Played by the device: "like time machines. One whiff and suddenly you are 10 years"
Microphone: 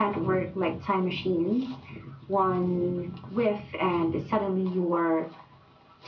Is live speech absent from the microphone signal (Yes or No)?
Yes